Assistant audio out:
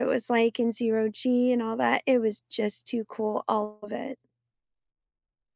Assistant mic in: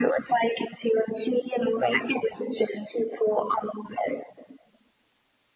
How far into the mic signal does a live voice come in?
none

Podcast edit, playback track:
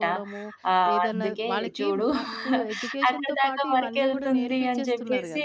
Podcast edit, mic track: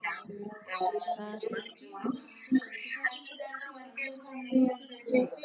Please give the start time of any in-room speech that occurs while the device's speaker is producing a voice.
1.2 s

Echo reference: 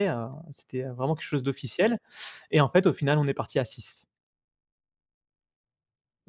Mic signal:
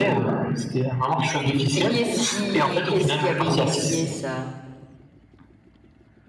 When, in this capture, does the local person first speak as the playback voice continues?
1.7 s

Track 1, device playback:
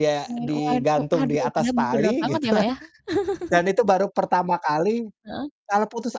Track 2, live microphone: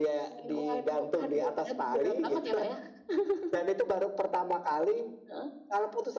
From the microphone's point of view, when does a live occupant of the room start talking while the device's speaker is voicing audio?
none

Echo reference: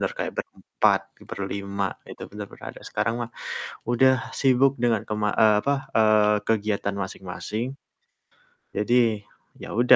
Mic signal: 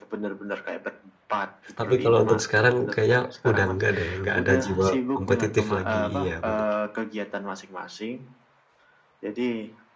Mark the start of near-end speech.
1.8 s

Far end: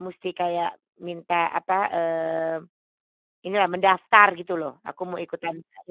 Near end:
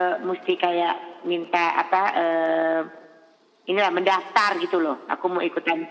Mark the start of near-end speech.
none

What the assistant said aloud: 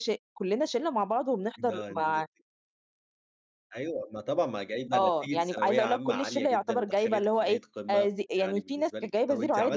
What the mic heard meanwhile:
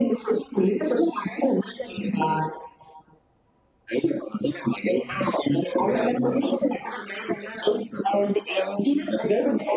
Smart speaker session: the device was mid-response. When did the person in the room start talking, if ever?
none

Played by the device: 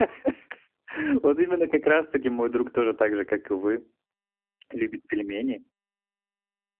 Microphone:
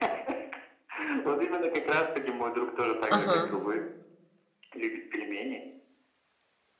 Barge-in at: 3.1 s

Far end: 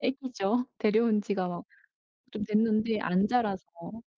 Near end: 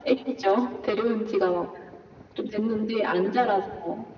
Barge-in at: none

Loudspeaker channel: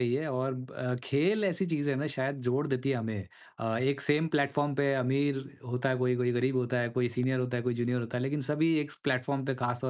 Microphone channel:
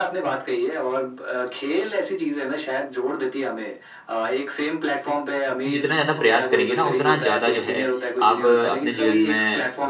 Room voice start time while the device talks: 5.7 s

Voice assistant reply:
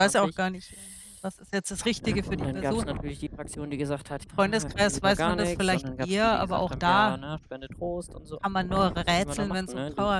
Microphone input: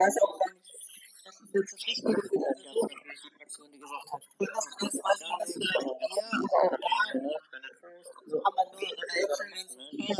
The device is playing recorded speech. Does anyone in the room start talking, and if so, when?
none

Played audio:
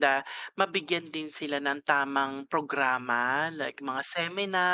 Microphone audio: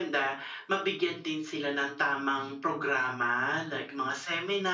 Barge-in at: none

